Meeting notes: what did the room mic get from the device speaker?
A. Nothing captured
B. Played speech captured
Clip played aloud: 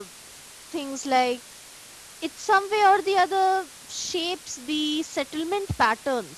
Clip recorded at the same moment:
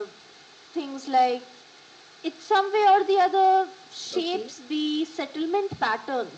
B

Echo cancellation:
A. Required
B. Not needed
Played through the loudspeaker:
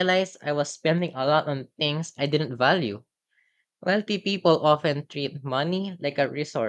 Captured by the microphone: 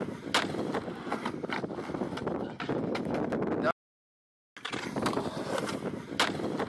B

